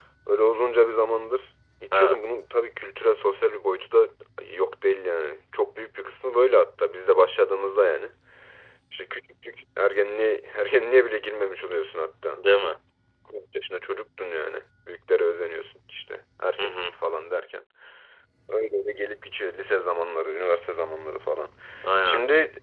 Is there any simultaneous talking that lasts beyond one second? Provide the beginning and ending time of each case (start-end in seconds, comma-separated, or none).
none